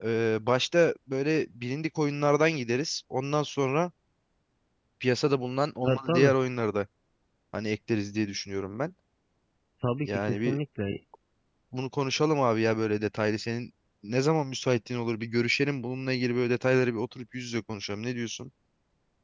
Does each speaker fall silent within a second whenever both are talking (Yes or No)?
Yes